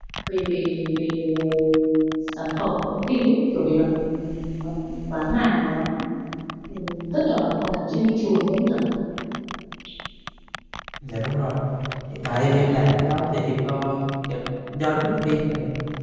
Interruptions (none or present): none